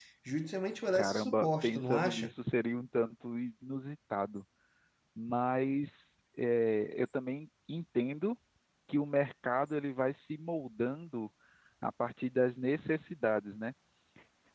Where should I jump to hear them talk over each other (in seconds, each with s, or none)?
0.9 s